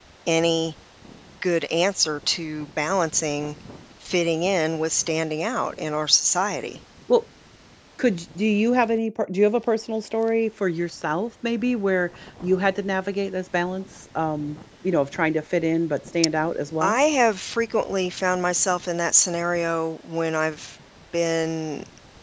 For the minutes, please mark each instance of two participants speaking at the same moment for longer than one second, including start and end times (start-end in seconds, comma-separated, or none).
none